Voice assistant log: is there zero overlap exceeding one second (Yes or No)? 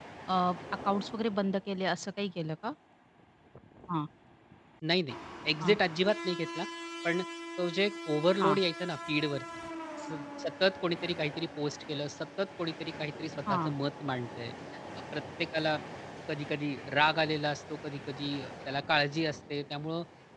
Yes